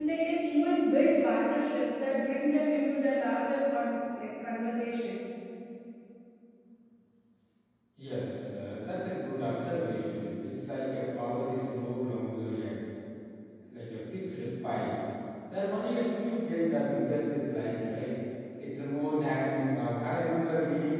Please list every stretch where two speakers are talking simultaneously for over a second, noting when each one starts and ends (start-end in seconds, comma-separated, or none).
none